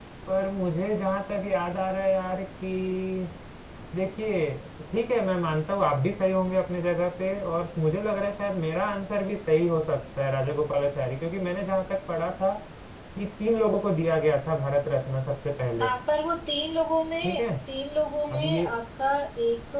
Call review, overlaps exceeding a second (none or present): none